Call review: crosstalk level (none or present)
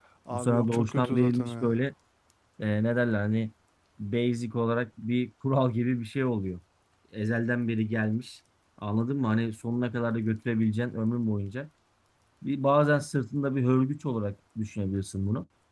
present